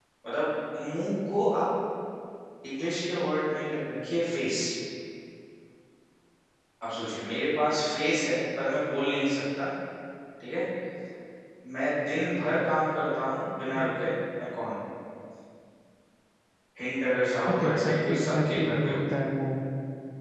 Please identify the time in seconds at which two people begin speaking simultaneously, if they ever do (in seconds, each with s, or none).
17.5 s